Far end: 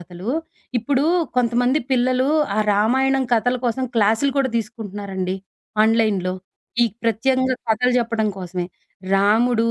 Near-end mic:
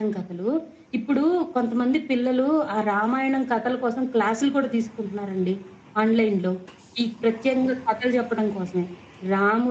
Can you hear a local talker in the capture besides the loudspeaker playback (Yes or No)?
No